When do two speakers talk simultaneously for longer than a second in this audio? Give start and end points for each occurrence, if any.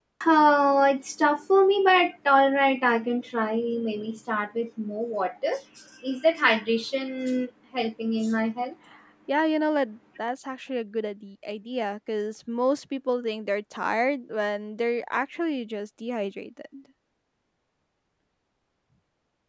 none

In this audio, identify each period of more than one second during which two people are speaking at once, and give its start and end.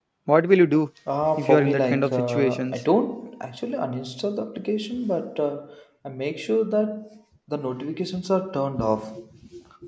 1.4-2.8

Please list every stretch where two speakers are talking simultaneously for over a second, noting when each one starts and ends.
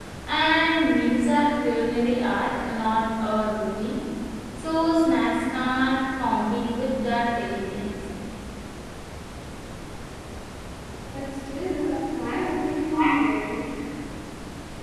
none

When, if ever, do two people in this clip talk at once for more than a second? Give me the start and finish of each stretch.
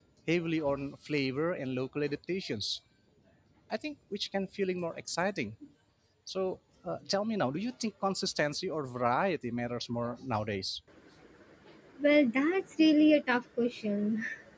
none

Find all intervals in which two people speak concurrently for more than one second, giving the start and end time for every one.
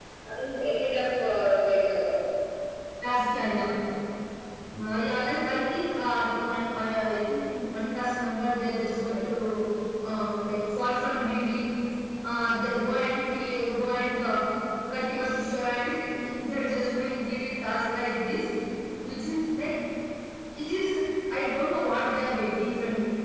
none

